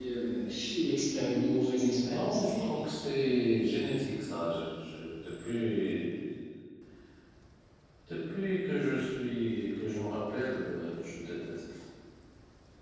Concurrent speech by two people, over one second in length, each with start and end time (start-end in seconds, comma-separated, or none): 1.3-2.7